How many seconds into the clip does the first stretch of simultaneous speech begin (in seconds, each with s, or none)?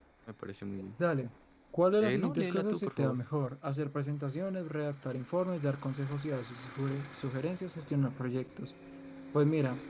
2.0 s